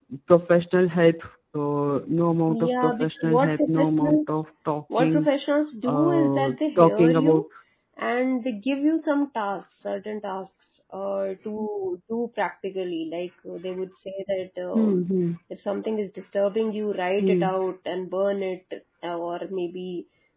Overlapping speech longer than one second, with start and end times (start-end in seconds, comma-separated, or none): 2.5-4.2, 5.8-7.4